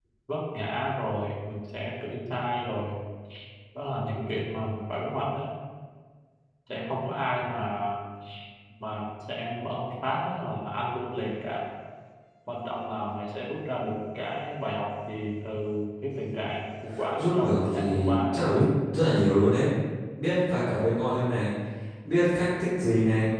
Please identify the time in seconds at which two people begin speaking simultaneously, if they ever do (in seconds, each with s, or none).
16.9 s